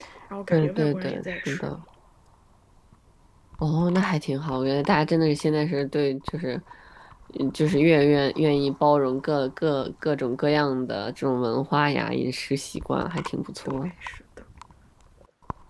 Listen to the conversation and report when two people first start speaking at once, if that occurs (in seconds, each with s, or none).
0.5 s